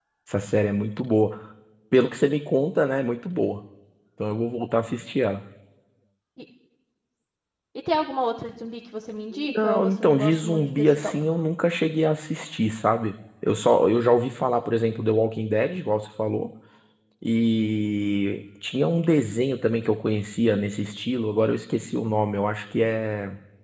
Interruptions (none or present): present